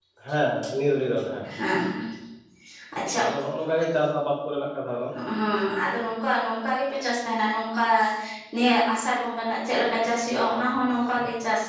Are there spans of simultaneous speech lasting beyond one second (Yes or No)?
No